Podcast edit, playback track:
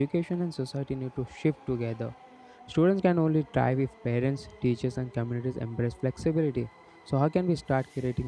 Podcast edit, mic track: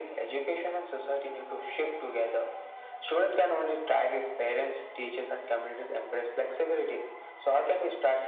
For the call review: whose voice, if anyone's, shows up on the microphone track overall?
echo only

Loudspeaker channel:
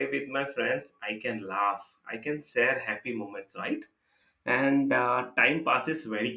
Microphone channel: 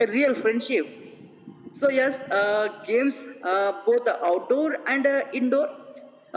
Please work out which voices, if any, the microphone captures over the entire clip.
user only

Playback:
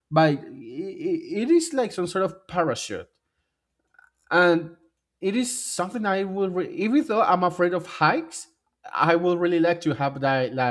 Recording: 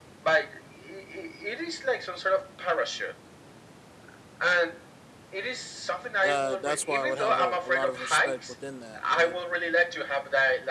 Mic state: both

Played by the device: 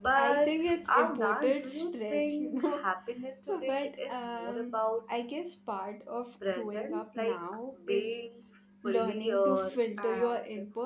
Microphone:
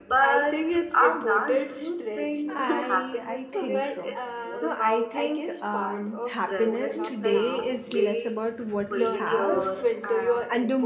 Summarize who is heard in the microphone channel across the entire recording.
both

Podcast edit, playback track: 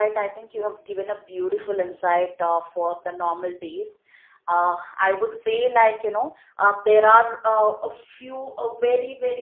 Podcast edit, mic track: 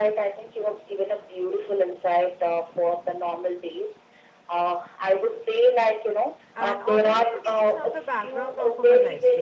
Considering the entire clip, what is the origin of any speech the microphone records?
both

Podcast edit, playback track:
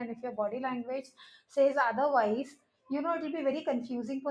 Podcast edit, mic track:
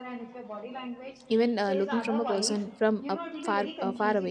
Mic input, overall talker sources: both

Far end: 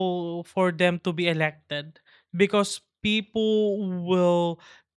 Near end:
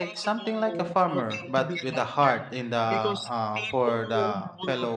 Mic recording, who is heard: both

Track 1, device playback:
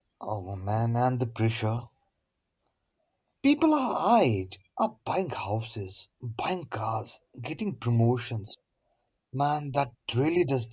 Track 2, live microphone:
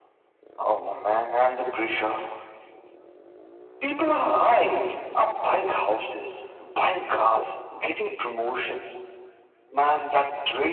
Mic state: echo only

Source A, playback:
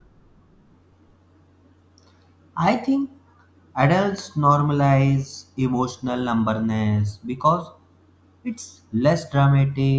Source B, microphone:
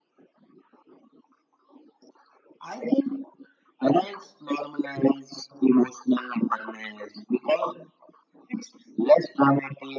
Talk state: echo only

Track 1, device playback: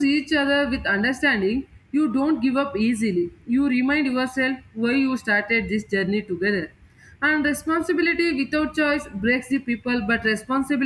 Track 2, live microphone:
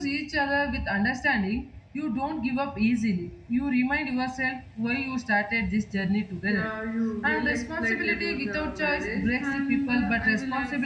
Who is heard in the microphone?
both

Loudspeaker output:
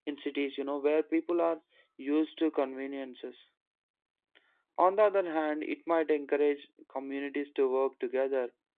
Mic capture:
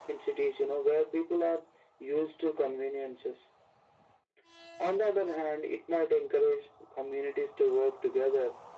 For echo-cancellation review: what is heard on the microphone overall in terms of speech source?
echo only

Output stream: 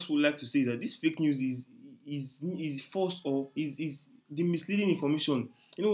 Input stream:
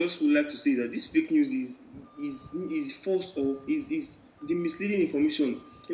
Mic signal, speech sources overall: echo only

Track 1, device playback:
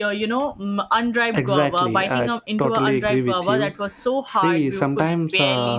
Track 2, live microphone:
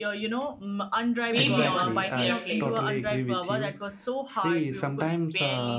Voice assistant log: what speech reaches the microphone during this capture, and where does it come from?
both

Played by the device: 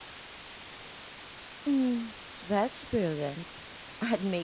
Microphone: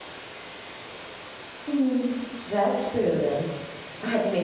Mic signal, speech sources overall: echo only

